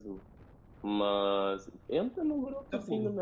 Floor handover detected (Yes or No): No